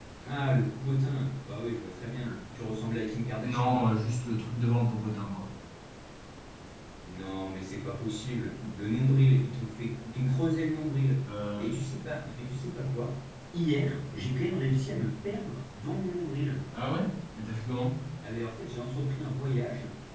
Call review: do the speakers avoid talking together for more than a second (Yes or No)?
Yes